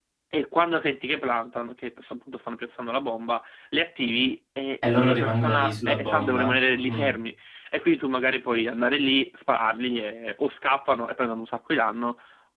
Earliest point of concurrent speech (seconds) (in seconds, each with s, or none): 4.8 s